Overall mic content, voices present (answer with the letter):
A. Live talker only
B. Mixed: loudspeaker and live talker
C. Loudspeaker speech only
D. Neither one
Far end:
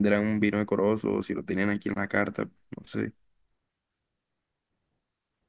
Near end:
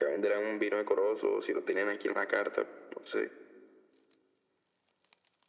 C